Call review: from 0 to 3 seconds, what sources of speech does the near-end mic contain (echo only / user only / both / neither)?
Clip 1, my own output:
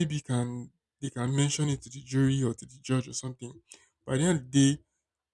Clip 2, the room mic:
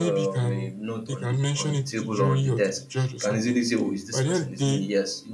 both